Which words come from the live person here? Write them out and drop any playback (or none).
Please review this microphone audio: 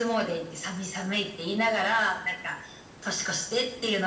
none